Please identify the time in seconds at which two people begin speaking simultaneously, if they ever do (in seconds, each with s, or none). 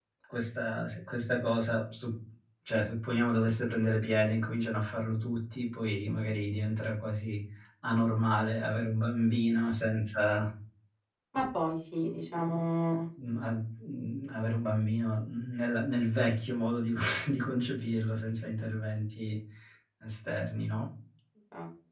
none